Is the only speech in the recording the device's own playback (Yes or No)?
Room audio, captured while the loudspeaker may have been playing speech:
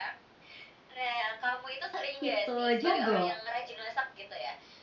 No